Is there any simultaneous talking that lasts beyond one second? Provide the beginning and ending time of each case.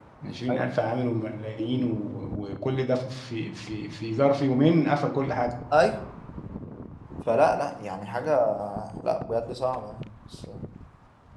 none

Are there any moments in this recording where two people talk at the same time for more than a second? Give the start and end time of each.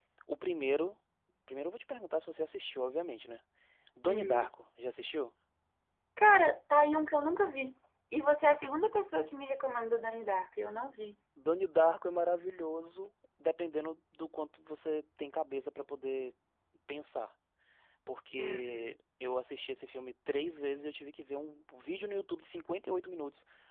none

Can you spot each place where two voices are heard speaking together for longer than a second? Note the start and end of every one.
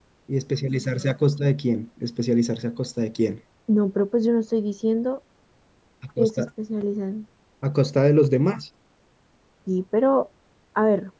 none

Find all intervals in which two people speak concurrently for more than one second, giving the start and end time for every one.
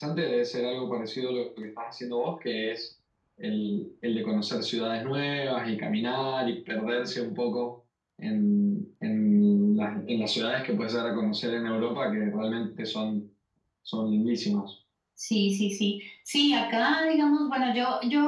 none

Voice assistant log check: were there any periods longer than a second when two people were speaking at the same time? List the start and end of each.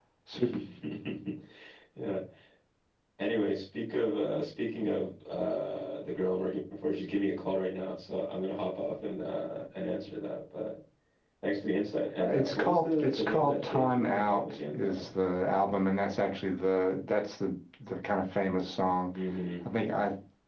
12.2-15.1

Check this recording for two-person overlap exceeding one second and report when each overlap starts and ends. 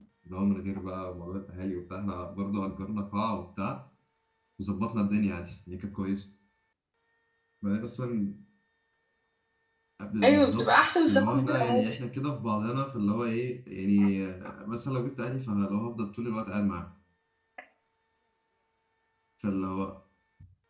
10.2-11.8

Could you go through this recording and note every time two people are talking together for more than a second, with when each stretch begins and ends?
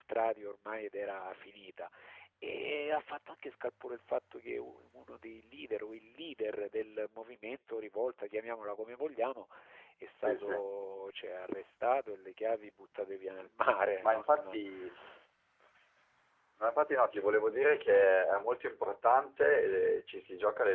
none

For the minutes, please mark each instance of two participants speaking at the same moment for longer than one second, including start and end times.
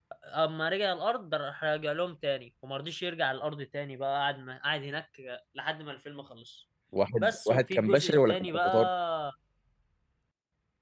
7.2-8.9

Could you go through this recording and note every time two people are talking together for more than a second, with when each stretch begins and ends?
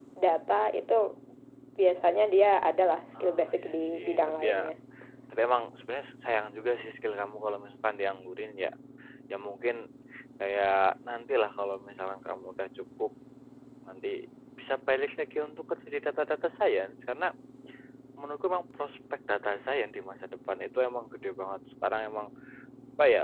3.2-4.6

